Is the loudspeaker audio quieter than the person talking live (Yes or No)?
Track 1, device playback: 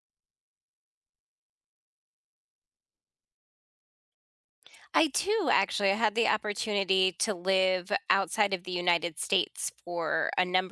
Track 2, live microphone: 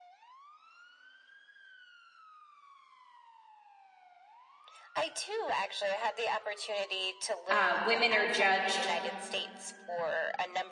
Yes